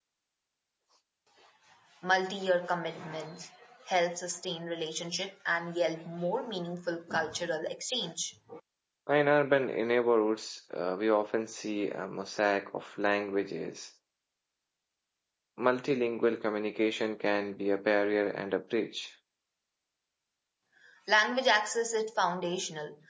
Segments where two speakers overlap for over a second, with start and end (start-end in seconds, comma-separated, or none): none